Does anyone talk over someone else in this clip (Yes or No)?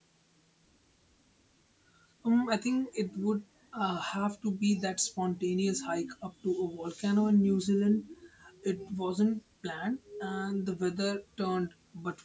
No